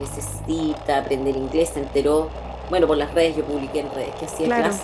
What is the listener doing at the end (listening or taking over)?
listening